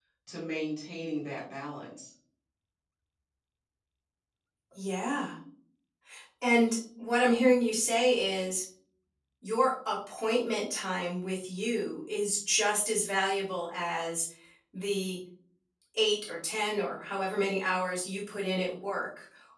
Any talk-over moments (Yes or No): No